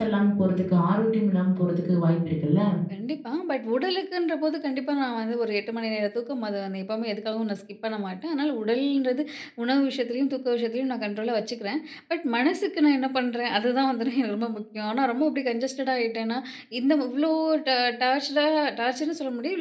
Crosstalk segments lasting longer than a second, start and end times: none

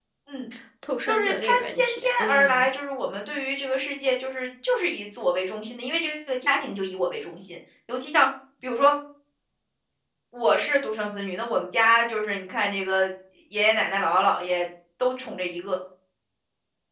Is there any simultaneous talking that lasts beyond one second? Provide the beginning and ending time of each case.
1.1-2.6

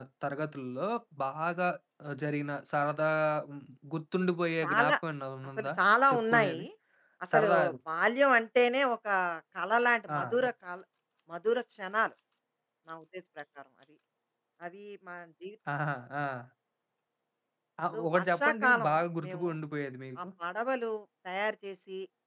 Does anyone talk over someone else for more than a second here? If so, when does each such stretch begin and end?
18.2-19.5

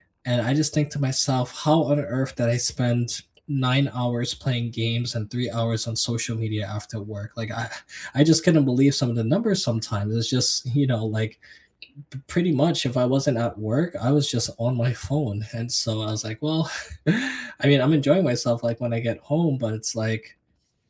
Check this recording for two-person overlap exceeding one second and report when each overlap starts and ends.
none

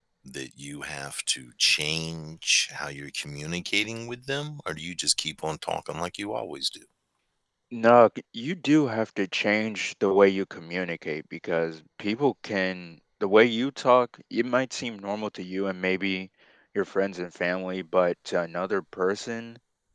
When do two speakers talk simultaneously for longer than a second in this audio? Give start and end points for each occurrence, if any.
none

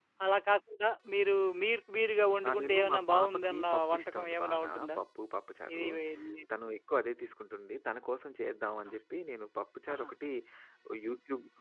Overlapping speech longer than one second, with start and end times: 2.5-5.0

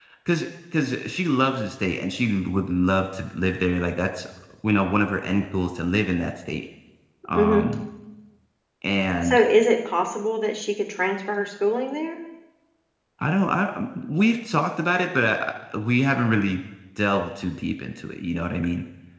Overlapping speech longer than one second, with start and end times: none

